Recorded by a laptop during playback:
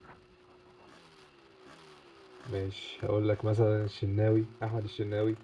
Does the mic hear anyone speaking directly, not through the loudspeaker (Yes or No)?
Yes